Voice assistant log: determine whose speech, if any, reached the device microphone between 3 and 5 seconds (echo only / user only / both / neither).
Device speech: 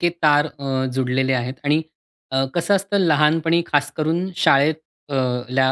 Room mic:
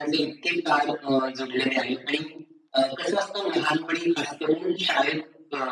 echo only